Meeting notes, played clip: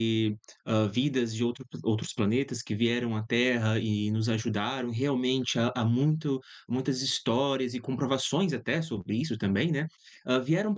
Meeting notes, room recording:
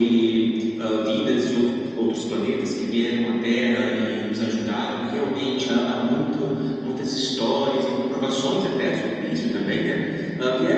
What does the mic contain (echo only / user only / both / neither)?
echo only